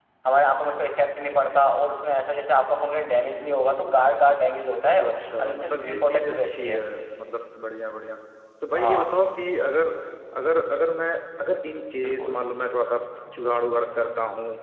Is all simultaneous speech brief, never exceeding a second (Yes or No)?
No